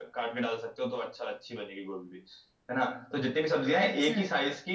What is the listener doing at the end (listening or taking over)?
listening